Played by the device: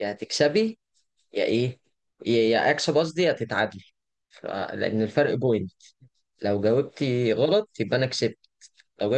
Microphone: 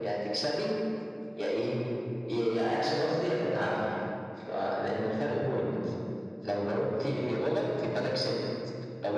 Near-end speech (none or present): none